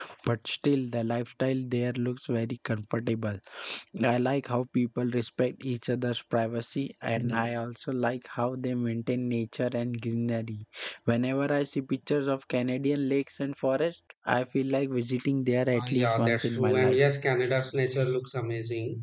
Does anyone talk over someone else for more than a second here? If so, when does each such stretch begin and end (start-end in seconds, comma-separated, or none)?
15.7-17.0